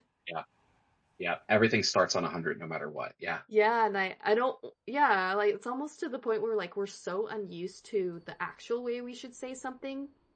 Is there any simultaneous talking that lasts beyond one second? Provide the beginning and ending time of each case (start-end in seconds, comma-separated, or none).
none